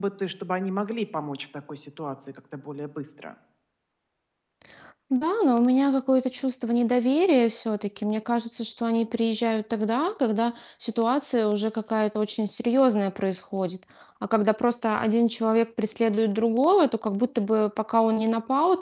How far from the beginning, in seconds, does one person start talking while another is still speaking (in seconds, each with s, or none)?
none